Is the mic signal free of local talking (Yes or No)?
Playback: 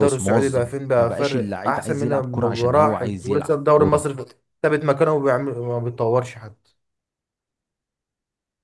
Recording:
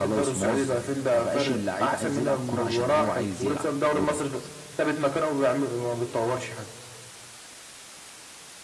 Yes